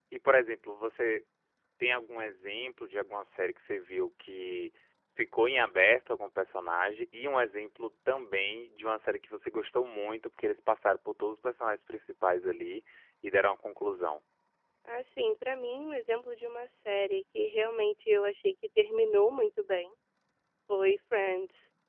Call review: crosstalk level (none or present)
none